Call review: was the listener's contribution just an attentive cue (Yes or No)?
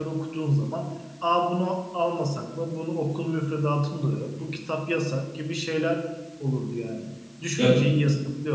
Yes